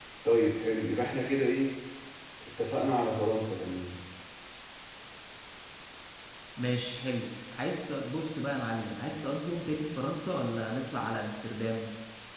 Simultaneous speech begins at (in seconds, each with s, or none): none